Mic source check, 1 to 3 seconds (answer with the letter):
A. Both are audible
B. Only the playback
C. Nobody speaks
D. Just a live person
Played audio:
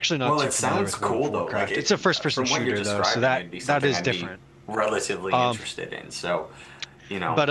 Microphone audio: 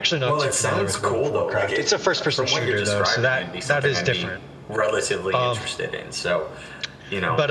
B